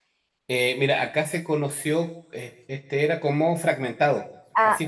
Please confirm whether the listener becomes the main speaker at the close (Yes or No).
No